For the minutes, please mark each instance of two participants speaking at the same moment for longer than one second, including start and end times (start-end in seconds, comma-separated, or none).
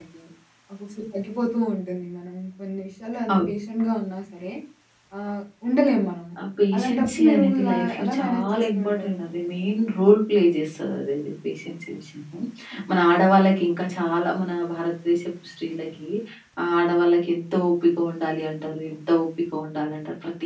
6.7-9.2